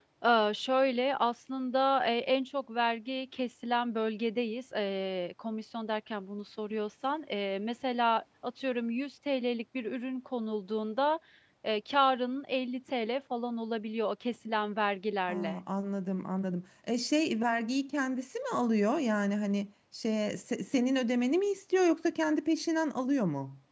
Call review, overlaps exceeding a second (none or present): none